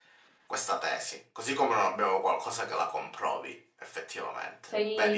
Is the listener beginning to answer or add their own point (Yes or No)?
Yes